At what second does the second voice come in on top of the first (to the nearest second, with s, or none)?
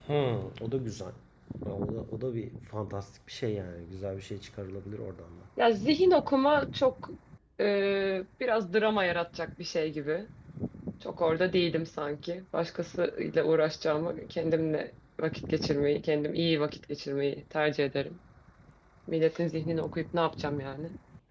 none